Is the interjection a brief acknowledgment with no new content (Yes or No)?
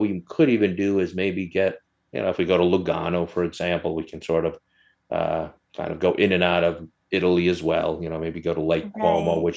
Yes